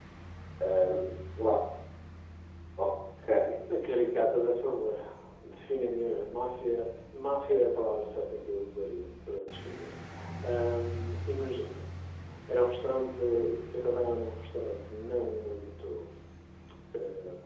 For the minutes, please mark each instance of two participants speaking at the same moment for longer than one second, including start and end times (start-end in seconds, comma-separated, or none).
none